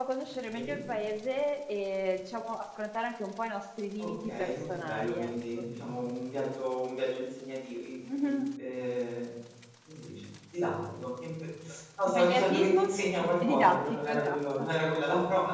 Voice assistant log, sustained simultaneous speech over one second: present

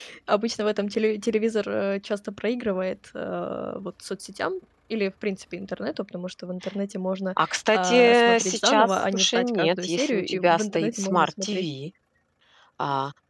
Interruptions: present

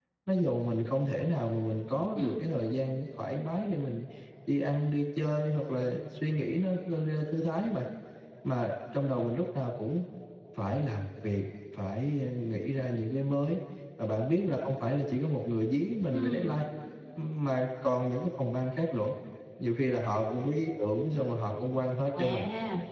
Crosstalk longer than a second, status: none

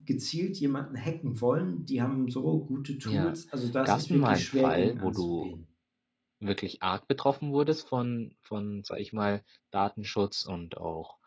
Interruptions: present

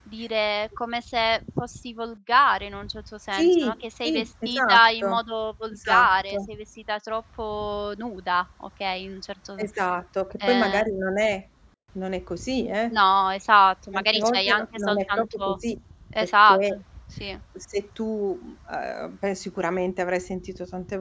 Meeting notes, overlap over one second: present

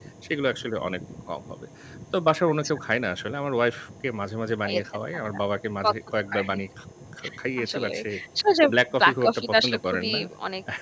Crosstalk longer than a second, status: present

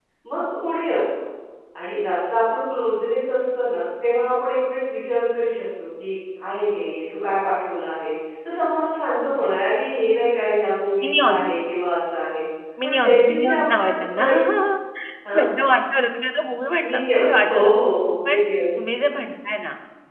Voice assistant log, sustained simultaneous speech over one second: present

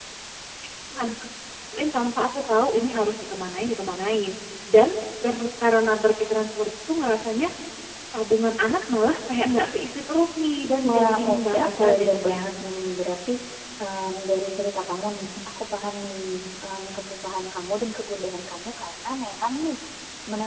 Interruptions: present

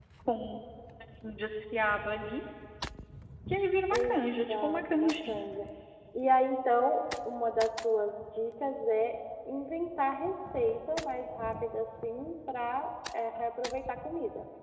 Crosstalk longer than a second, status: present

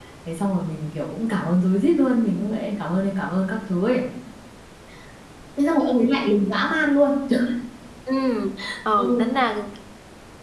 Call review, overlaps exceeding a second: none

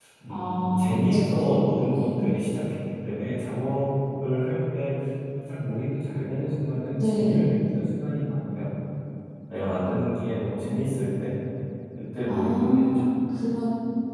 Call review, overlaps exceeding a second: present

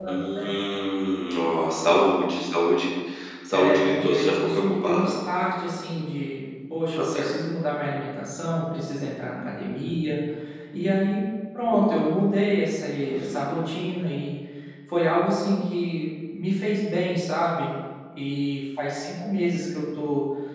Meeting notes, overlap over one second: present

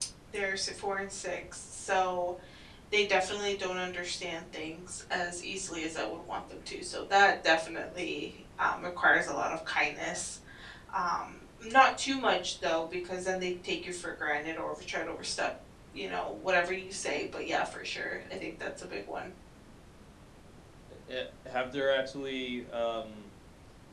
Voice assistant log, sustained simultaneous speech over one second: none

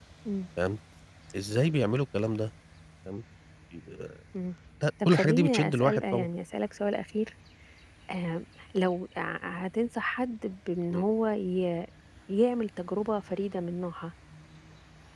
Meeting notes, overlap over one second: present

